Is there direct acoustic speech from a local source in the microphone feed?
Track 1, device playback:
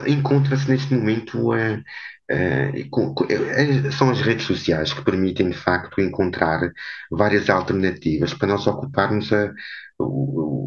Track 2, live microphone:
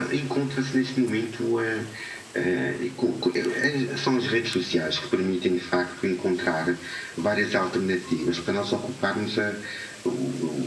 No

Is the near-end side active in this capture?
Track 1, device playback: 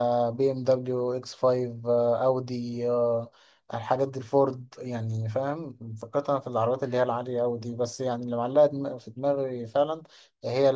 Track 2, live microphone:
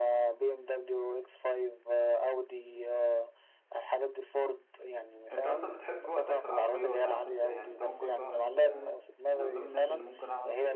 Yes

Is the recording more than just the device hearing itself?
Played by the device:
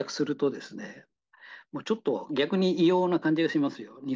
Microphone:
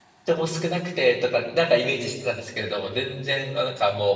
Yes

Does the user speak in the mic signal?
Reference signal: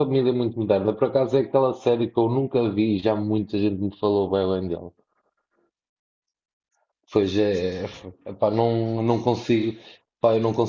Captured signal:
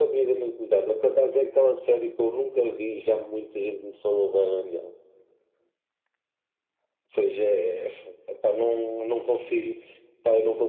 No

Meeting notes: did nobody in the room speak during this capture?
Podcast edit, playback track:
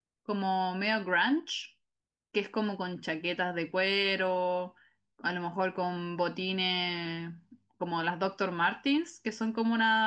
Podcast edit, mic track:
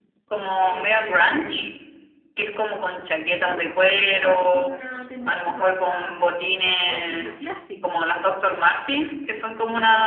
No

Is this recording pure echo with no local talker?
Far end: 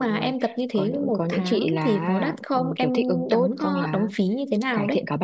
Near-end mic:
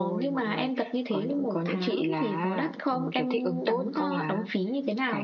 Yes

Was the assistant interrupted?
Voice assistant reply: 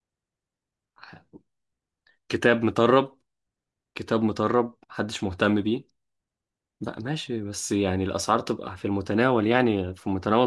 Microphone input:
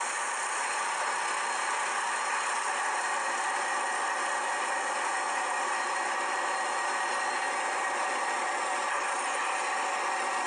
No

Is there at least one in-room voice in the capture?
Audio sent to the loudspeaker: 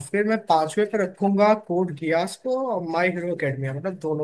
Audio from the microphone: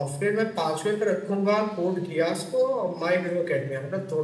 No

